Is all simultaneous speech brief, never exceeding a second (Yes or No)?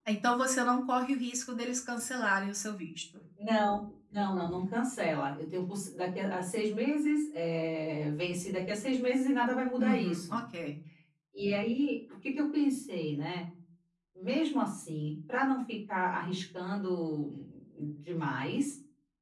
Yes